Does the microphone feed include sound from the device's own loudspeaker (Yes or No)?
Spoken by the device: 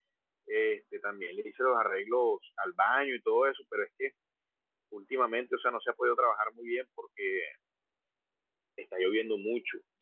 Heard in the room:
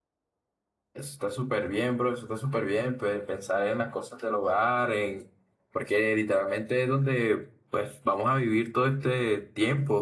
No